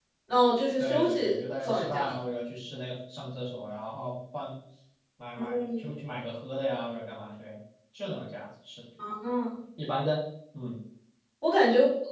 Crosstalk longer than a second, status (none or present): present